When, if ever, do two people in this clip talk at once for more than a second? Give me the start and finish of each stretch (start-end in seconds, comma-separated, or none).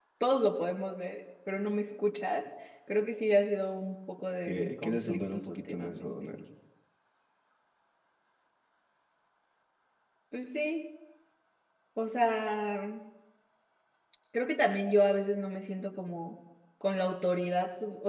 4.5-6.1